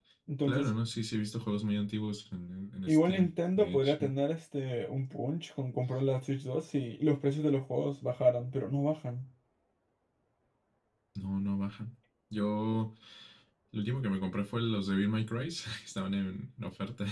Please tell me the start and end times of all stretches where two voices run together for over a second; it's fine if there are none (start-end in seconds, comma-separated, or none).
2.9-4.1